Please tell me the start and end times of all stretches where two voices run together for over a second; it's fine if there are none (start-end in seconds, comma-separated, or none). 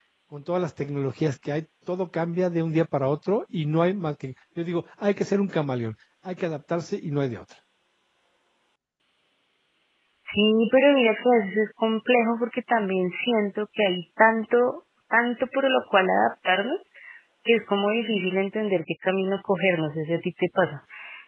none